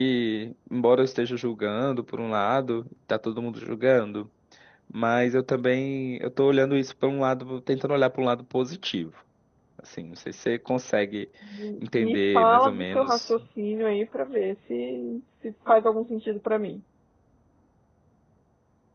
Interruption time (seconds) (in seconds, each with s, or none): 11.9 s